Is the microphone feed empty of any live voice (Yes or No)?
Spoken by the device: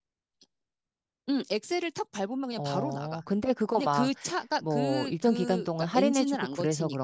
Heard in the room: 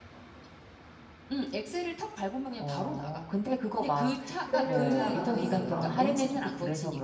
No